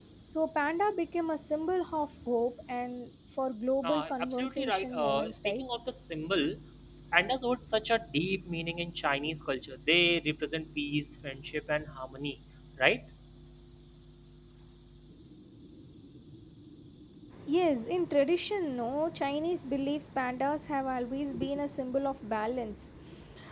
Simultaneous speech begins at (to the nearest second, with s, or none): 4 s